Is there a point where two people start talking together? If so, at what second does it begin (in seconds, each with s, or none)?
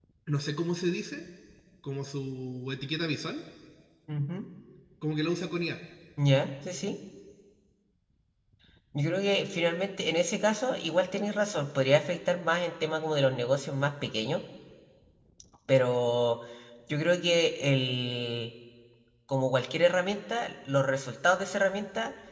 none